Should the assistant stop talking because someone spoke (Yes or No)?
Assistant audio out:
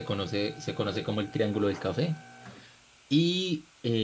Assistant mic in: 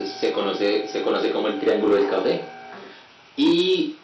No